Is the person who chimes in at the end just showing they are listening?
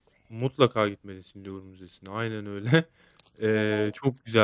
Yes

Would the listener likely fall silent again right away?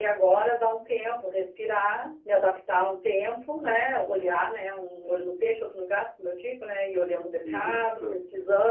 Yes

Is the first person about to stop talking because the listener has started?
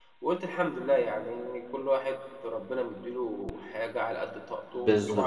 No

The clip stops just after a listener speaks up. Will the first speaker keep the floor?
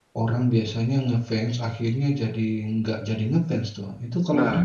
No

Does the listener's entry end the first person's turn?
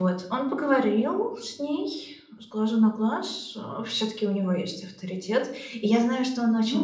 No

